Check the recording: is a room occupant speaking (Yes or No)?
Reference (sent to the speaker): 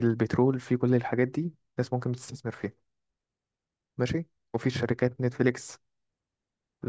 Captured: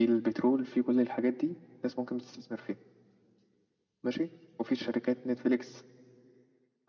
No